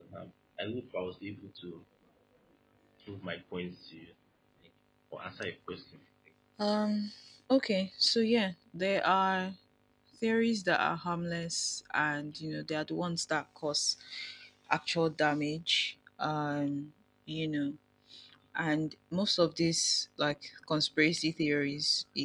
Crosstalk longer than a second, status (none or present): none